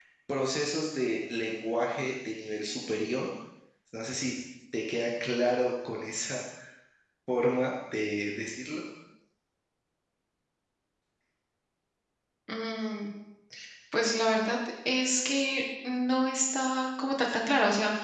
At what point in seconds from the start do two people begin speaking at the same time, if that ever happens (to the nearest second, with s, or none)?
none